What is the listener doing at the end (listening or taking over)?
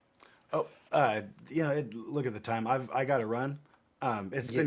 taking over